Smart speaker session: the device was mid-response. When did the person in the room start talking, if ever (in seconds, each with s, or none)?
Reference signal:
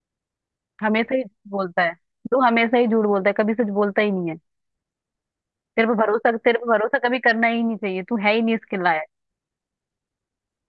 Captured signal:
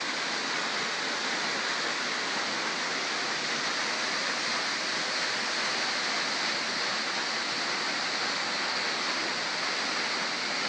none